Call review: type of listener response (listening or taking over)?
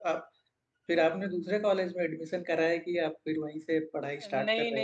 taking over